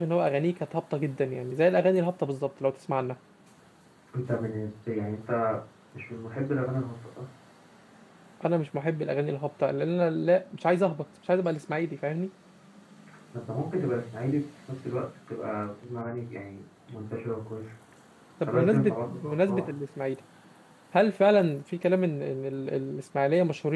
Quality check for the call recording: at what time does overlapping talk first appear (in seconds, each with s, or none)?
18.4 s